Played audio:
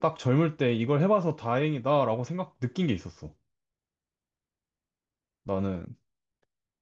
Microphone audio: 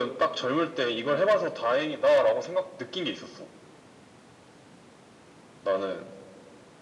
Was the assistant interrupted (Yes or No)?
No